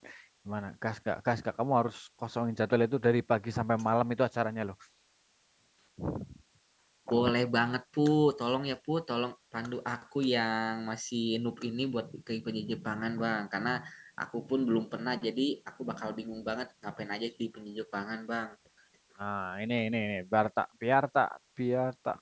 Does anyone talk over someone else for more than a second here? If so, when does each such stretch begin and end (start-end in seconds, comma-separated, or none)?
none